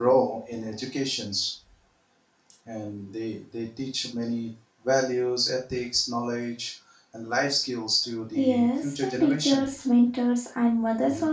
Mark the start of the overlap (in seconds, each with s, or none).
8.3 s